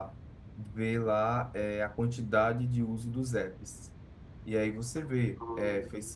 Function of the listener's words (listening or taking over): listening